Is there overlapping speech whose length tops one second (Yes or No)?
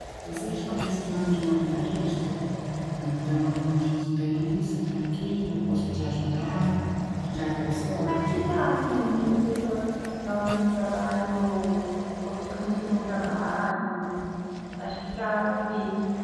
No